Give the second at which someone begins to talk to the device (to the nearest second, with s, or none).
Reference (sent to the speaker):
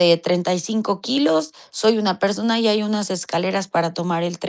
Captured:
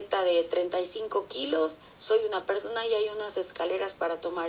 none